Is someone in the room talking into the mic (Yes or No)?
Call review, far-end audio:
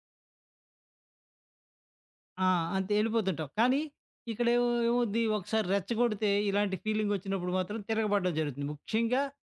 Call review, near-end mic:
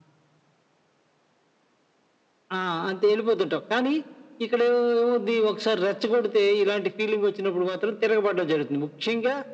No